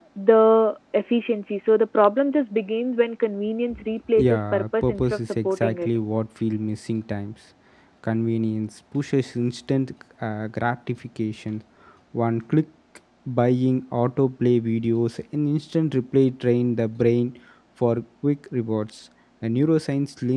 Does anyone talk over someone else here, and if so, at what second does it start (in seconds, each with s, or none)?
4.2 s